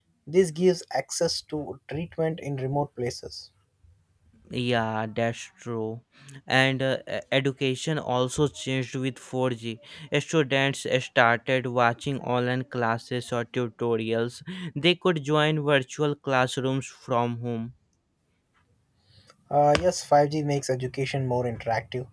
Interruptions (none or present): none